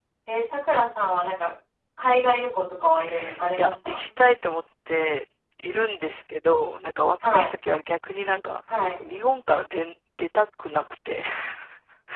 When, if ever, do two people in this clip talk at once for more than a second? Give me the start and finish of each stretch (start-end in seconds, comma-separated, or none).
none